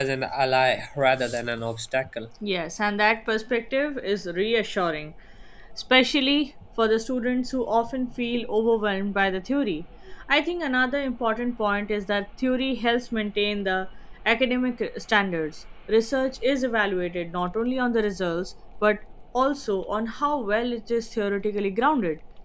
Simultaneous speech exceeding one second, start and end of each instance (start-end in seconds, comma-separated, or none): none